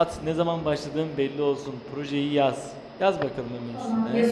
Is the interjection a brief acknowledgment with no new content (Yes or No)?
No